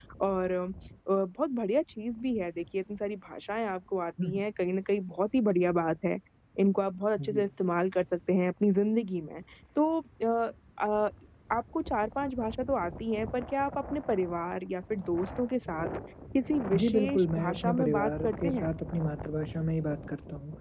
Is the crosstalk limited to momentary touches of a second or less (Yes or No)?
No